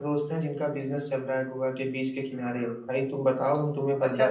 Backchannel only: No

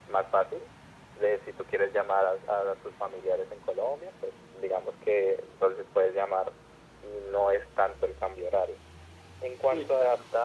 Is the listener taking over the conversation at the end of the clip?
No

